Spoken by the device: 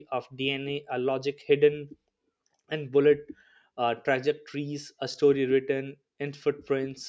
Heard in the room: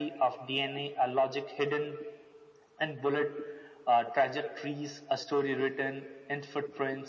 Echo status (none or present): present